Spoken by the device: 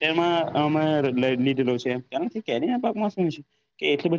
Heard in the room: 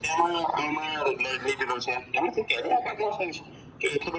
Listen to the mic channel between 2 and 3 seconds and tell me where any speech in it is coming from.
echo only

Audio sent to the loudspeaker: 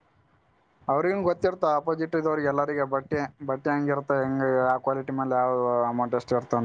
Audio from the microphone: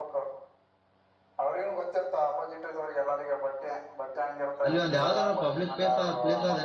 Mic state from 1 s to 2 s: echo only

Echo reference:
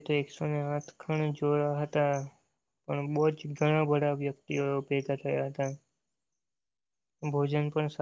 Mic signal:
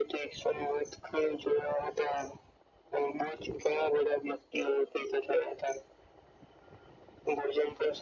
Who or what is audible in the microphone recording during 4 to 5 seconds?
echo only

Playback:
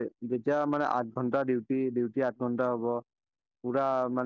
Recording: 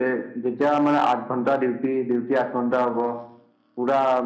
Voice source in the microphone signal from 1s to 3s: echo only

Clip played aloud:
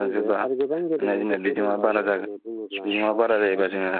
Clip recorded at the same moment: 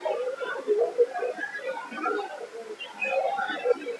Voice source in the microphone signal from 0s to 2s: echo only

